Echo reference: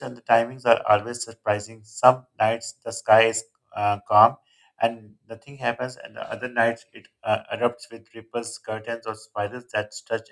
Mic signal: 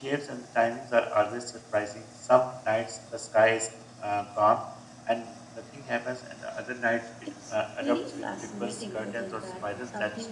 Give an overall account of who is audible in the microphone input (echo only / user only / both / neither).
both